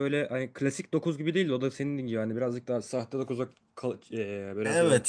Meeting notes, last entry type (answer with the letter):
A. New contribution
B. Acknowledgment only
A